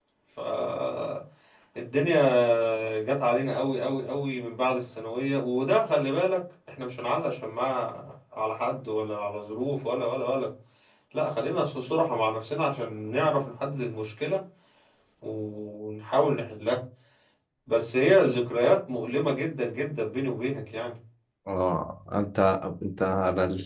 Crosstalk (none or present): none